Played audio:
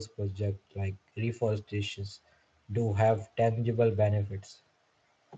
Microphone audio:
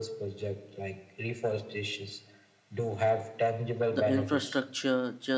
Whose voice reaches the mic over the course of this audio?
both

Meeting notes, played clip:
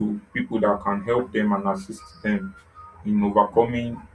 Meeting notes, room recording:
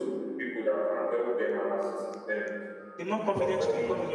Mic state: both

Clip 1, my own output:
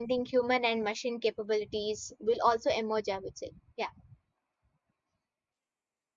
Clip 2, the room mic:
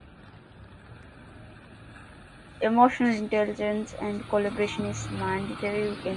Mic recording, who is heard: user only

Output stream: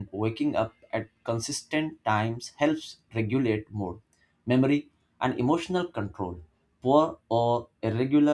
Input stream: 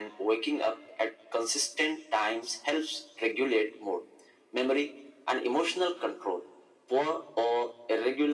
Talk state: echo only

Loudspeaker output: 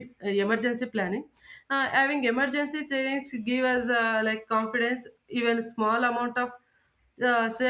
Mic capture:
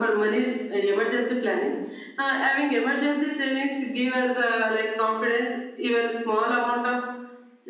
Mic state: echo only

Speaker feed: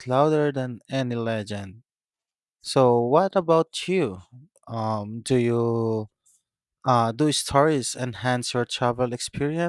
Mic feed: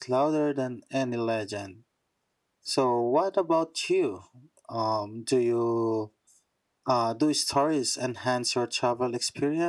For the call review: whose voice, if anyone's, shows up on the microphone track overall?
echo only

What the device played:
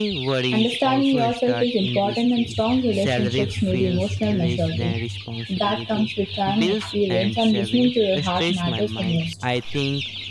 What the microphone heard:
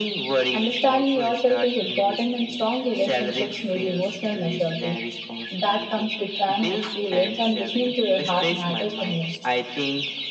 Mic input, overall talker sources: echo only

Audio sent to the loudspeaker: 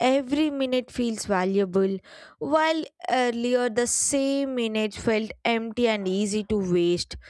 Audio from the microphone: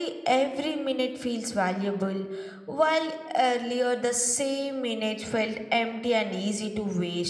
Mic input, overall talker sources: echo only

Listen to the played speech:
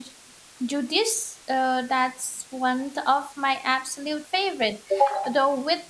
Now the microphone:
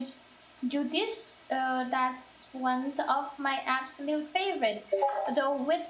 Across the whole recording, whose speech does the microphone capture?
echo only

